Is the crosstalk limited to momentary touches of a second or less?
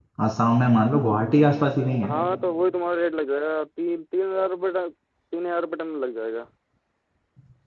Yes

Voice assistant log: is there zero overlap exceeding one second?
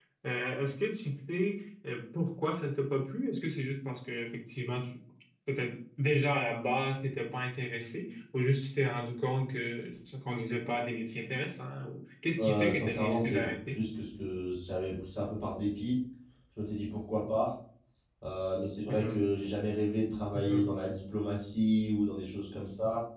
No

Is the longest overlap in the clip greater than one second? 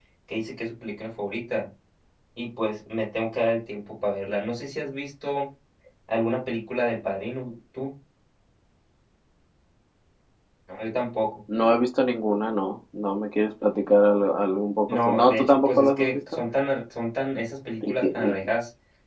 Yes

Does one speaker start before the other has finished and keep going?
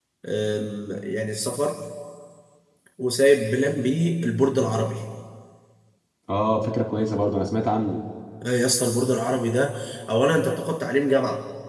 No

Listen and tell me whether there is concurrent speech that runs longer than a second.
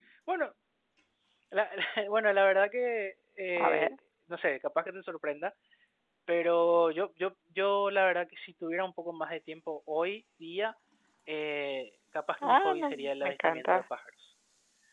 Yes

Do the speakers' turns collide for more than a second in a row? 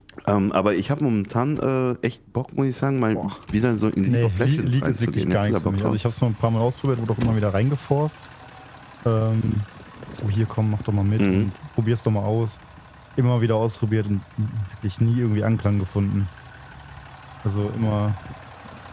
Yes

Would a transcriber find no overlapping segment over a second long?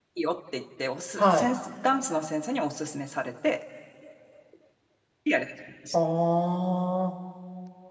Yes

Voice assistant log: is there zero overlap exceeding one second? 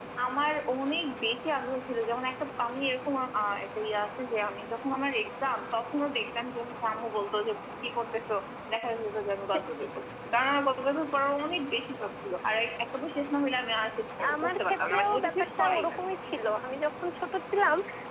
No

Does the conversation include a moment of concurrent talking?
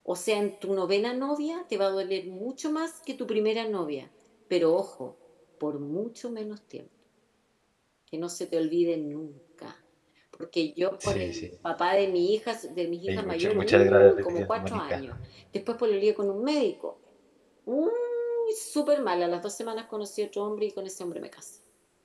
Yes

